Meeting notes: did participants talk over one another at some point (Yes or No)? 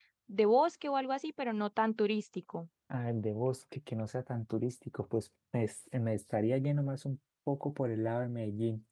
No